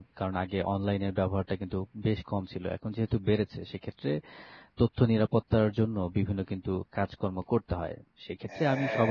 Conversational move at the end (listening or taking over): listening